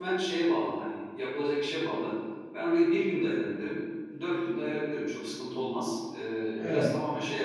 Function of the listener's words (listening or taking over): taking over